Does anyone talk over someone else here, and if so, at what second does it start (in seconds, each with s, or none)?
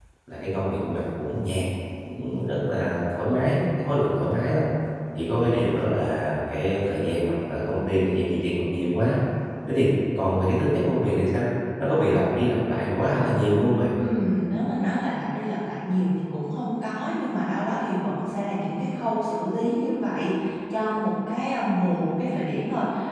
none